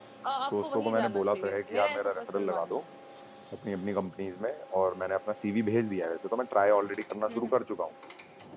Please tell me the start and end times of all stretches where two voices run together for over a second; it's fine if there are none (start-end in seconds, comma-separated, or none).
0.5-2.8